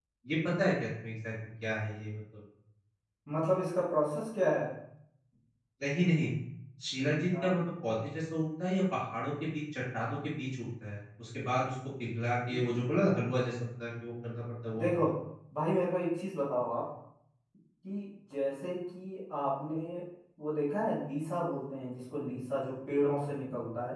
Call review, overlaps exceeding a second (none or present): none